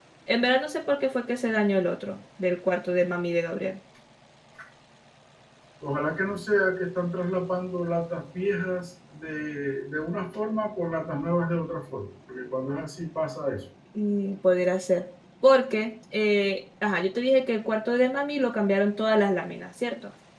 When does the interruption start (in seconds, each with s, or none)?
none